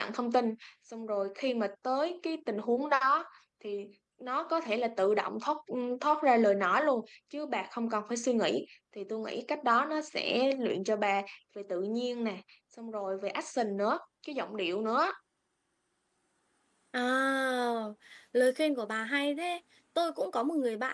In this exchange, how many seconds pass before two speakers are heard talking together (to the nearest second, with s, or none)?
none